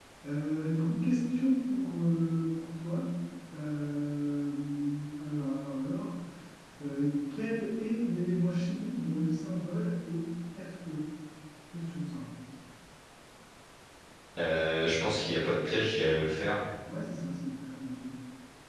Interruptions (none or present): none